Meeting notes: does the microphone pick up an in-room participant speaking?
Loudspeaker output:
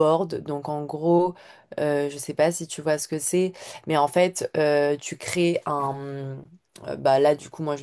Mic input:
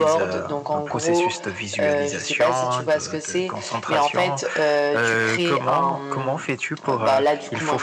Yes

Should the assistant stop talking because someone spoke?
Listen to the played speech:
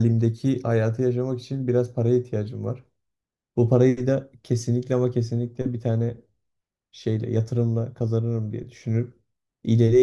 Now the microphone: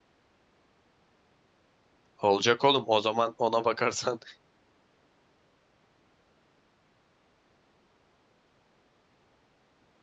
Yes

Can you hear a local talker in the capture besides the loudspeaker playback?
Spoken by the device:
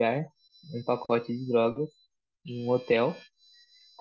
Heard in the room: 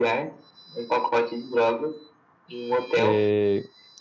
Yes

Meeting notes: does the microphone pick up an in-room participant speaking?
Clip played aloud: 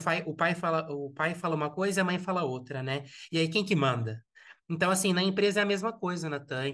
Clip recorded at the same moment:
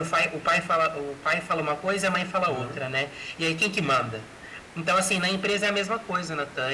Yes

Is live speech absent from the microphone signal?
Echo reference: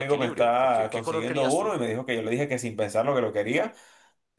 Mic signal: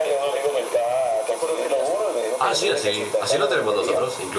No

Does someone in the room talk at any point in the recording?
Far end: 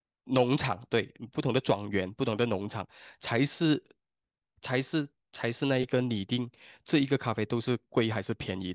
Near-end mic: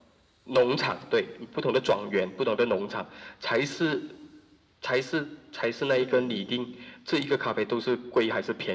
Yes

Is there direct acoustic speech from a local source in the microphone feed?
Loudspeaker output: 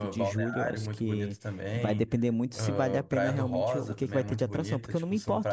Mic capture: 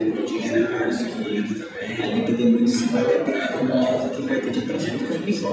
No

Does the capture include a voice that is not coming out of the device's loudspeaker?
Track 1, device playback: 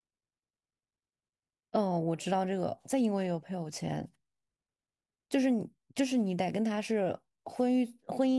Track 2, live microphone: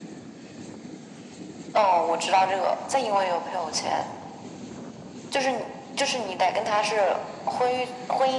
No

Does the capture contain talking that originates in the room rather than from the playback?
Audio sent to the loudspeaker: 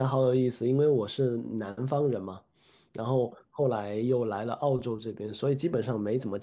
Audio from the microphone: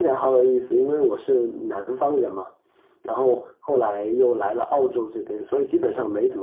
No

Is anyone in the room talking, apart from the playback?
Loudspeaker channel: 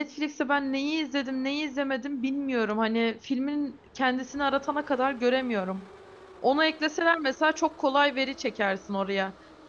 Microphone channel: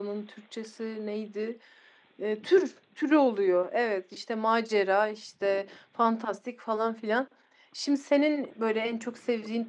Yes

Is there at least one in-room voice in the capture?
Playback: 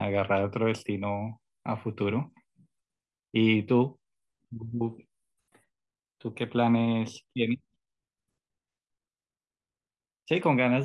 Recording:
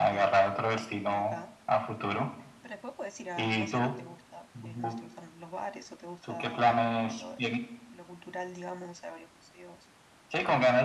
Yes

